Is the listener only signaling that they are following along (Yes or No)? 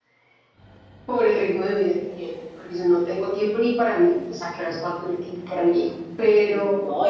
No